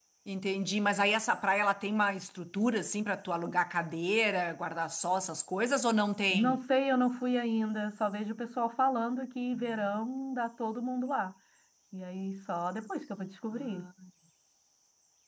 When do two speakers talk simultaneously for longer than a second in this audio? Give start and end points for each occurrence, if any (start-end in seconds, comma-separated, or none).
none